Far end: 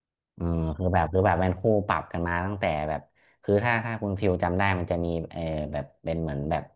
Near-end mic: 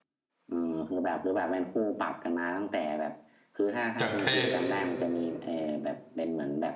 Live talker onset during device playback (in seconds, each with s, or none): 4.0 s